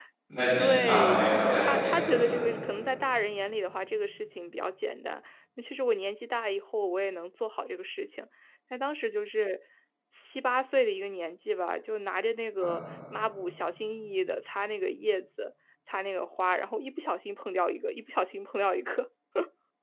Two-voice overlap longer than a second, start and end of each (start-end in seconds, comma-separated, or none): 0.6-2.4